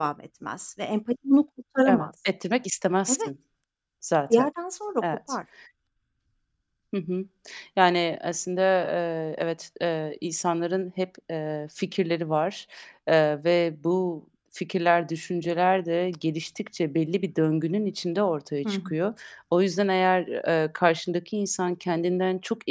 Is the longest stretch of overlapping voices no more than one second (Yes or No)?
Yes